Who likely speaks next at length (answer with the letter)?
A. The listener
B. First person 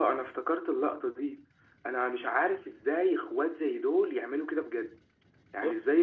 B